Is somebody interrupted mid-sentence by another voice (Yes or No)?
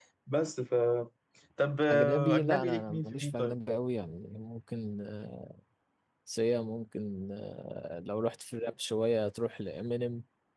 Yes